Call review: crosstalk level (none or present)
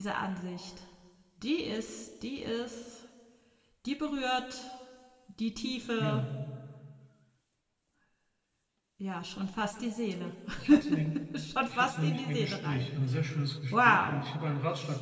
present